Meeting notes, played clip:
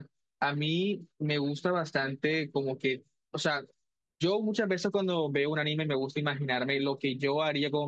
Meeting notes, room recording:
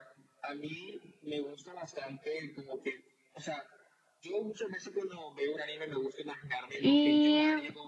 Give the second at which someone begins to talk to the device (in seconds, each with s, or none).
6.8 s